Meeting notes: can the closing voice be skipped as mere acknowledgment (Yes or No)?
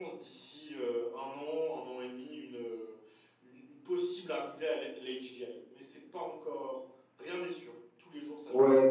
No